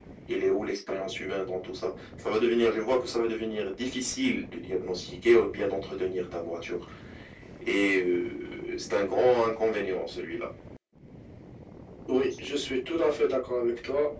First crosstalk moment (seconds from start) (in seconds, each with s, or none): none